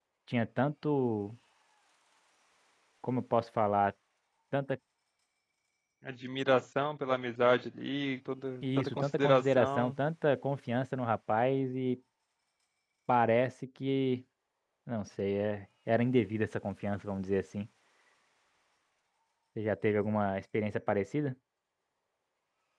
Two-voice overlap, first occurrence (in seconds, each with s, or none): 8.6 s